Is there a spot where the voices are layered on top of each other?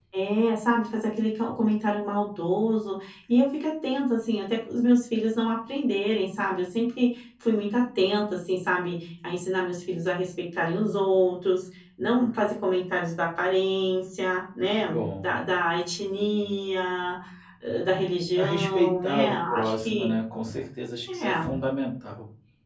Yes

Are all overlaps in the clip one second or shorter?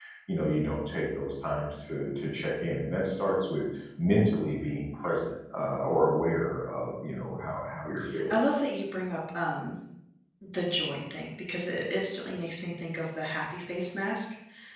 Yes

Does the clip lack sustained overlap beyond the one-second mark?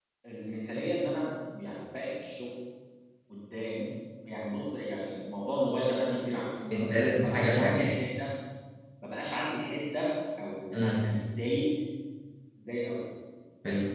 No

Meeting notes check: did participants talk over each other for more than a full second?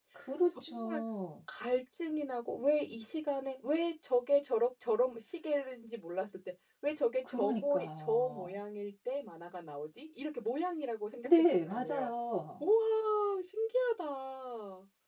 Yes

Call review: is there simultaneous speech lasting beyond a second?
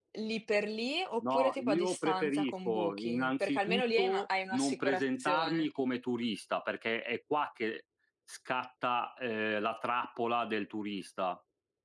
Yes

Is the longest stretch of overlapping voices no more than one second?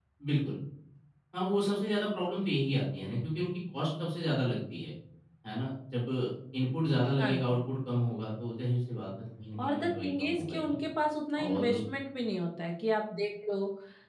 No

